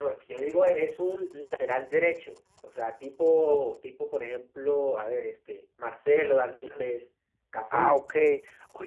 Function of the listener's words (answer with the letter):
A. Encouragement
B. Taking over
B